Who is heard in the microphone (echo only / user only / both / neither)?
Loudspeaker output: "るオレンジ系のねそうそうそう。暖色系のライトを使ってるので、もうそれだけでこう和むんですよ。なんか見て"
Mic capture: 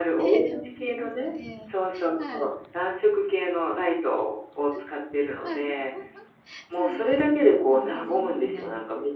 both